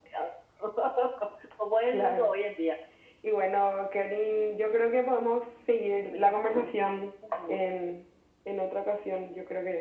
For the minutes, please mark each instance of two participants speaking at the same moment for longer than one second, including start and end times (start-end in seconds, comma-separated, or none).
none